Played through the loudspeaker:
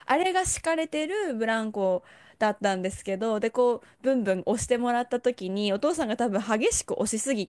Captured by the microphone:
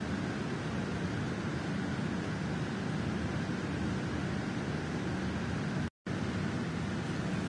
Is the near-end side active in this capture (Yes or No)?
No